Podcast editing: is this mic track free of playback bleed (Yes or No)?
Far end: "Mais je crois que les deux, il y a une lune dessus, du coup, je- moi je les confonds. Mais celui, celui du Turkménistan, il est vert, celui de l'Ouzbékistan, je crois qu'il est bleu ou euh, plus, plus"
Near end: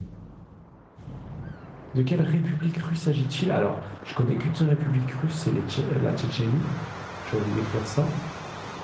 Yes